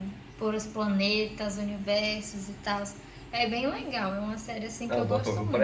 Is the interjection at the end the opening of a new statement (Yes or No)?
Yes